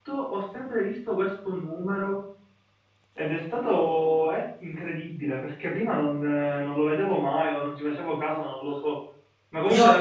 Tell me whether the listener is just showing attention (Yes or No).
Yes